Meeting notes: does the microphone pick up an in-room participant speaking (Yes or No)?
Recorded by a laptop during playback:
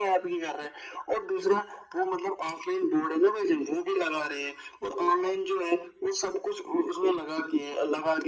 No